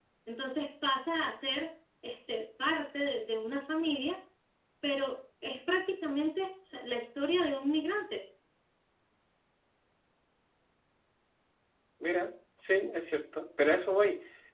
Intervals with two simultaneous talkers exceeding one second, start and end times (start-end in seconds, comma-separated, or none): none